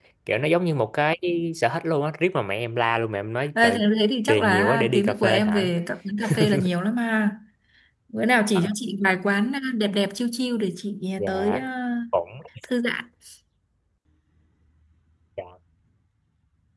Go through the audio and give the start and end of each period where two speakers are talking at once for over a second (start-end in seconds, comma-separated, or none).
4.3-5.7